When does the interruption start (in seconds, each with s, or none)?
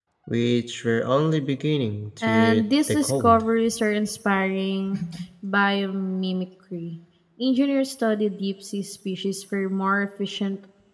2.2 s